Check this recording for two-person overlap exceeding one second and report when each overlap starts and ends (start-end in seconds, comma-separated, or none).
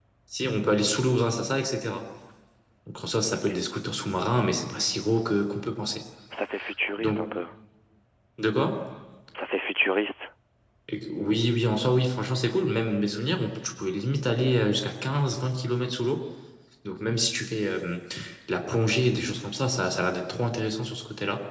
none